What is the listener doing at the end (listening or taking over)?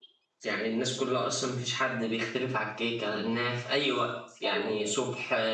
listening